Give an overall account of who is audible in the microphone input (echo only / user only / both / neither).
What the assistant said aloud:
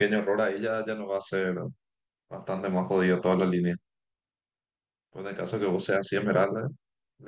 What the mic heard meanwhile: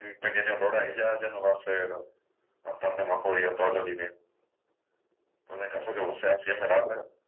echo only